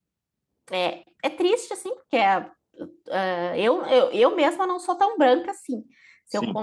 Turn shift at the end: No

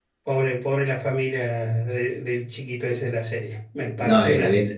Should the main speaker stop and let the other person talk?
Yes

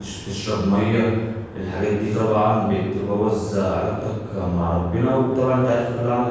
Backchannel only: Yes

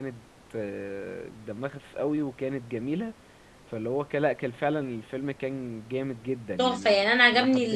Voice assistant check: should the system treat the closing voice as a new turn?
Yes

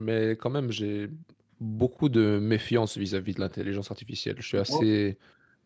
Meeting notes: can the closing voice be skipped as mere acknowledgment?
Yes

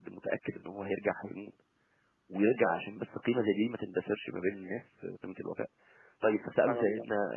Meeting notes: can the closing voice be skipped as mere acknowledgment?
Yes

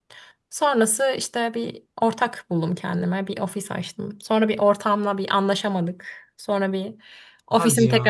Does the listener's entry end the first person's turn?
No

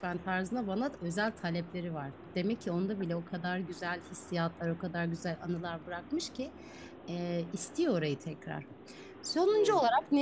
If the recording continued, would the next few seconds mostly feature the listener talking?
No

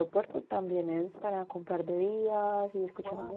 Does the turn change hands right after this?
No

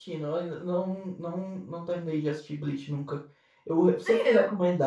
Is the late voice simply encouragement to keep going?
Yes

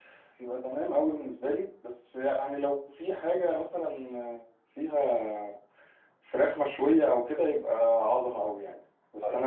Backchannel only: Yes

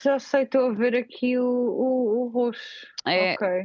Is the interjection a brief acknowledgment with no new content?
No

